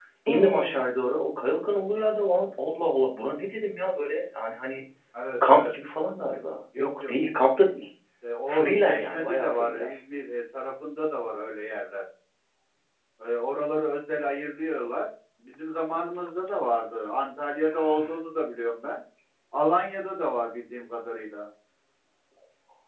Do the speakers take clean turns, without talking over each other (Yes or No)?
No